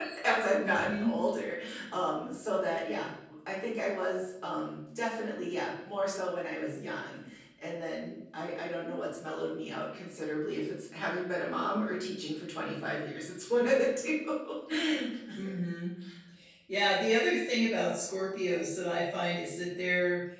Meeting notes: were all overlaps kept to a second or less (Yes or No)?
Yes